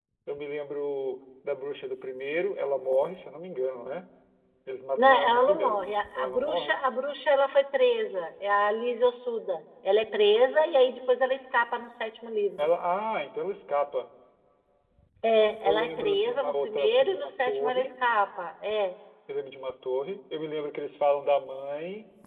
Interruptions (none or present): present